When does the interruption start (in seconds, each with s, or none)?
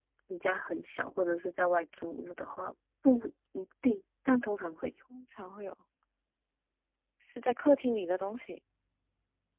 none